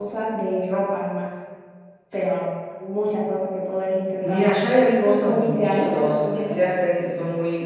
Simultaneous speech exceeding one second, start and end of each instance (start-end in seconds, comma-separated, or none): 5.0-6.6